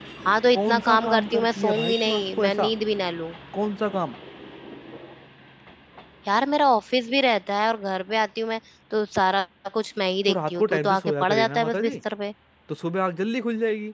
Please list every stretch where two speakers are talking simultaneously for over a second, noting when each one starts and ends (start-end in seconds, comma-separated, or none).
0.5-2.7, 10.3-12.0